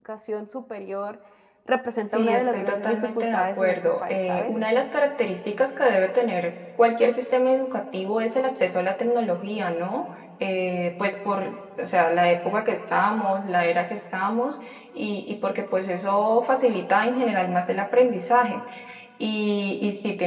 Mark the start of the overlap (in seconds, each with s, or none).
2.1 s